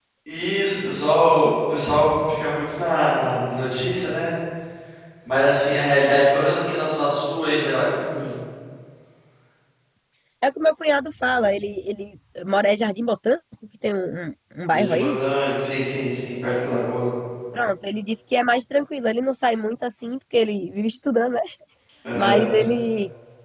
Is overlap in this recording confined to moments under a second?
Yes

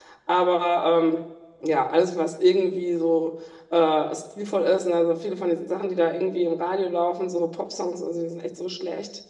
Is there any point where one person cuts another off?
No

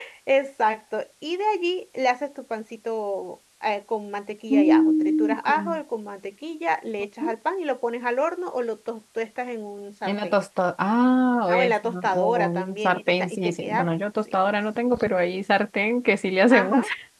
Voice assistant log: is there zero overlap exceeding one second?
No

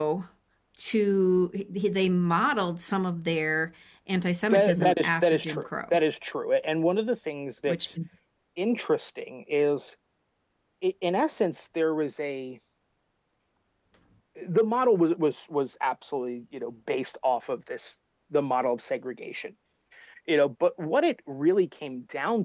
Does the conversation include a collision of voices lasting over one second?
Yes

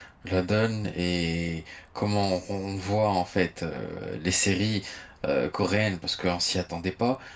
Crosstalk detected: No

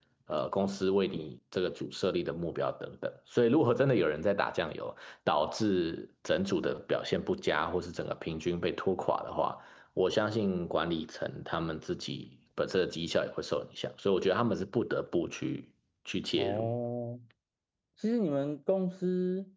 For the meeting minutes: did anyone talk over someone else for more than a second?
No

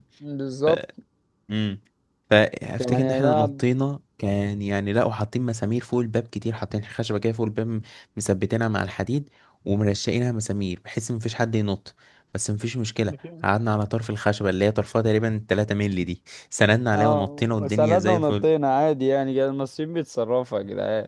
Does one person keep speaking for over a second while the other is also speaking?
Yes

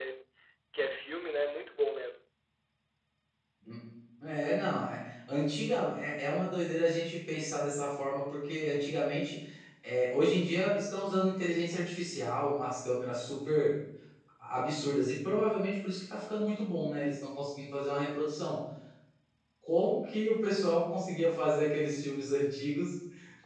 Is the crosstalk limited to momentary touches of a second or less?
Yes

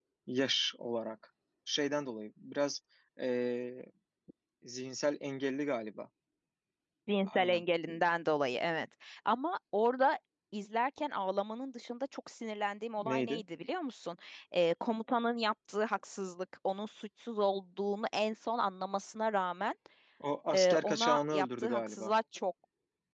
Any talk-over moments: Yes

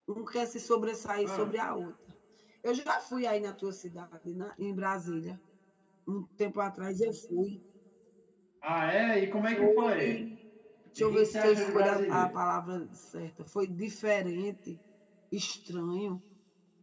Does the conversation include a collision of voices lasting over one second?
Yes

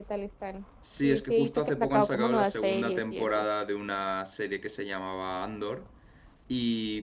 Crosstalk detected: Yes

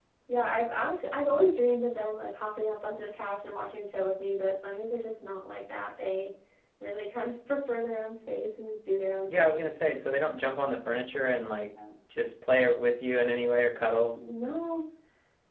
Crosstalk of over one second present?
No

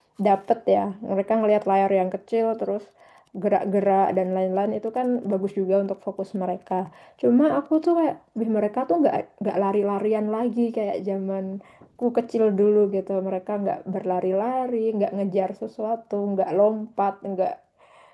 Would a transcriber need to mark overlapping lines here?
No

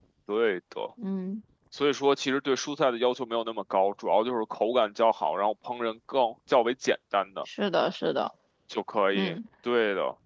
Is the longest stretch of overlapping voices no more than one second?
Yes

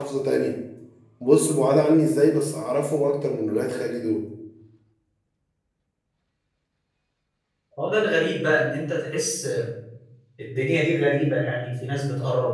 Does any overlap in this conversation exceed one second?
No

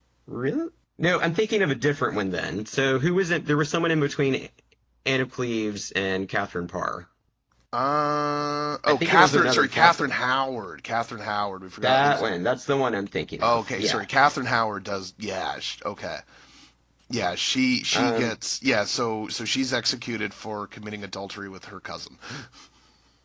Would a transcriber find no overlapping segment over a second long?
No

